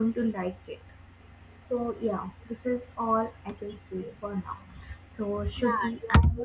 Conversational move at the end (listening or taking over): taking over